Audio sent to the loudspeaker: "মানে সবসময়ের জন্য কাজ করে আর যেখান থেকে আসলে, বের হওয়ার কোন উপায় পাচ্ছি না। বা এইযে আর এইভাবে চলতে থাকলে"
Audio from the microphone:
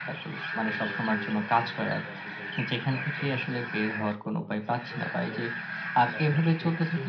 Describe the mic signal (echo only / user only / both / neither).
both